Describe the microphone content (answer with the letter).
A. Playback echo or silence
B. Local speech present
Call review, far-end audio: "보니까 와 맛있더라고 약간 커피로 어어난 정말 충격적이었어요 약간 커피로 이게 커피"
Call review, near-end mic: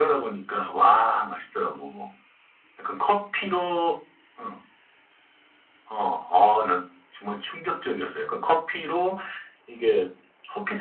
A